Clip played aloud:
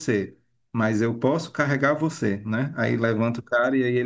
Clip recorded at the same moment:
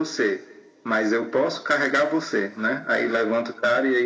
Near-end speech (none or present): none